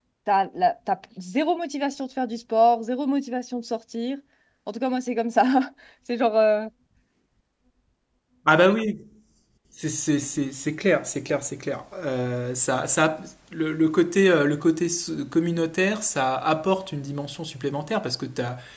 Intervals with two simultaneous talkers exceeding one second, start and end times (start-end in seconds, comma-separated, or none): none